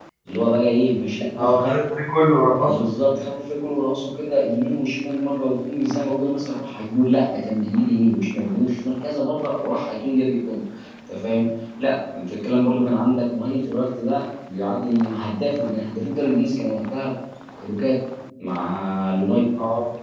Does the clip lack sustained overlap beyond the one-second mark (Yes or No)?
Yes